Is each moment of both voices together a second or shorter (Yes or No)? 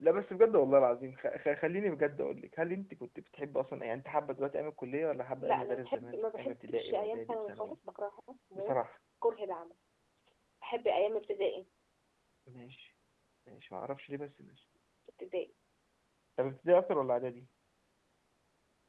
No